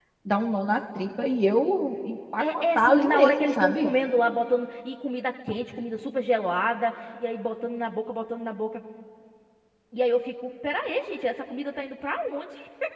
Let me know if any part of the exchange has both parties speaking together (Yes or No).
Yes